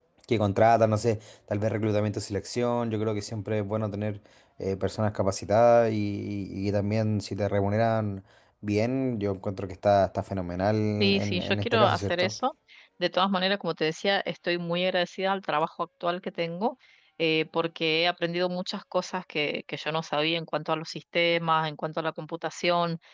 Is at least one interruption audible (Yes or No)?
Yes